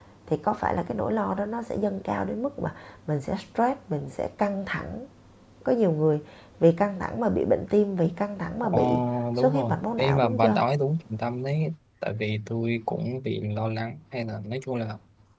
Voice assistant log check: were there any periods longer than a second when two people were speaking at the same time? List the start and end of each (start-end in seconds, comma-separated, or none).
9.4-10.6